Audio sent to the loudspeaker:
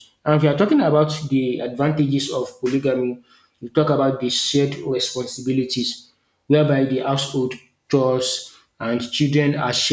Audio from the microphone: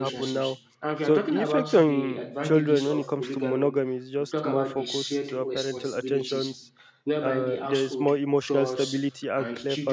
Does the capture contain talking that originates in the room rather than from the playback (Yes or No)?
Yes